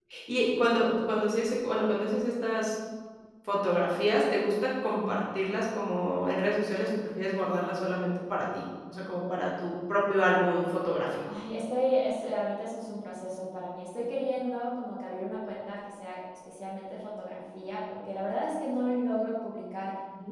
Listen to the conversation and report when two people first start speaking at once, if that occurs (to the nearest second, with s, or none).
none